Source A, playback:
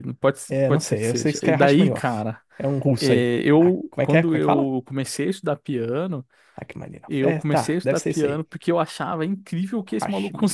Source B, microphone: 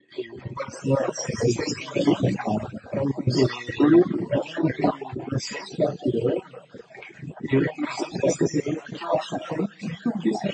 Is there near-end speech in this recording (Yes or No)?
No